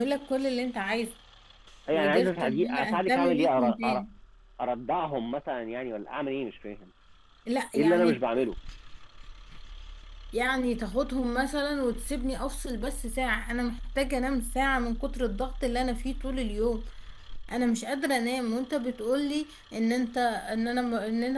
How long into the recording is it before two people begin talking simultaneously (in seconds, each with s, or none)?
1.9 s